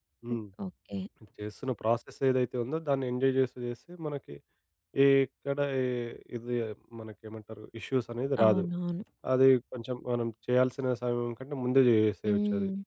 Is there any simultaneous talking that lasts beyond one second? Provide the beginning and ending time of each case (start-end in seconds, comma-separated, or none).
none